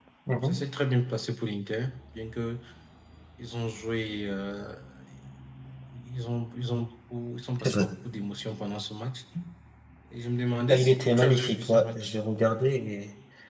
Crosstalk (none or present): present